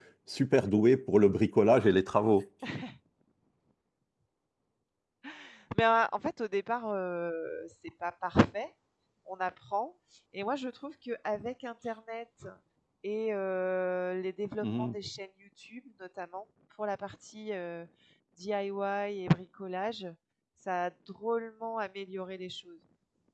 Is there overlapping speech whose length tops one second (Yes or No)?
No